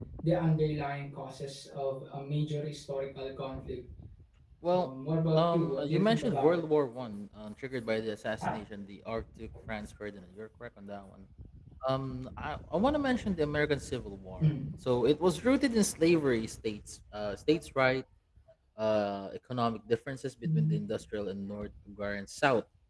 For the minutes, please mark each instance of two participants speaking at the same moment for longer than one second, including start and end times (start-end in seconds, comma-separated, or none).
5.4-6.6